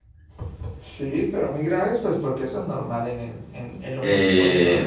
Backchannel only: No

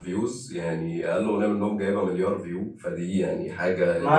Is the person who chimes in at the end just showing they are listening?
No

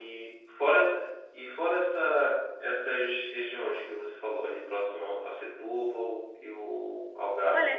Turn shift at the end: Yes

